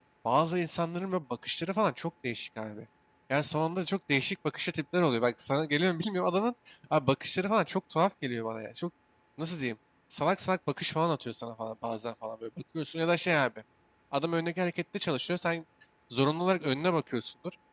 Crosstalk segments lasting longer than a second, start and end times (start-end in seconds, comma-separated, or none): none